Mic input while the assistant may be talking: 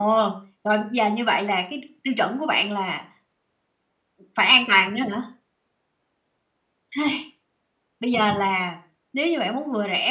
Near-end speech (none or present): none